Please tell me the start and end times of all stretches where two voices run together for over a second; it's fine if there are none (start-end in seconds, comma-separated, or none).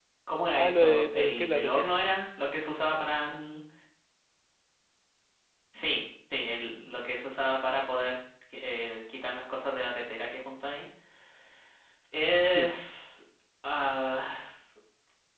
0.5-1.9